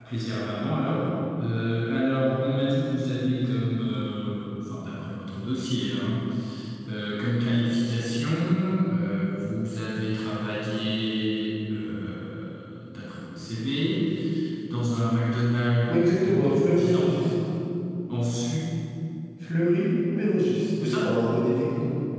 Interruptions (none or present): present